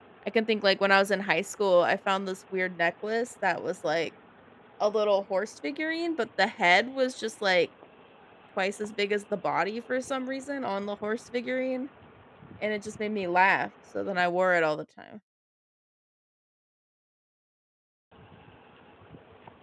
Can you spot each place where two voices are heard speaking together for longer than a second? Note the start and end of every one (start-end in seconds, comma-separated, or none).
none